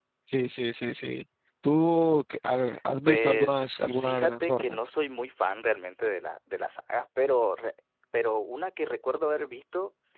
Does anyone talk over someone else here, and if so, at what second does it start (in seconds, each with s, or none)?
3.0 s